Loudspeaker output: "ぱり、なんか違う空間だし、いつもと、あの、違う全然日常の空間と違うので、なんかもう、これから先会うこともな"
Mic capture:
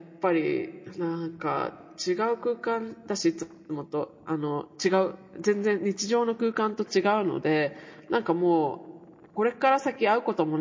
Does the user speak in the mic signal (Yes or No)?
No